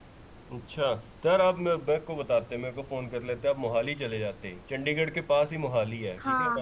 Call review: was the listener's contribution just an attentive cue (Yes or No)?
Yes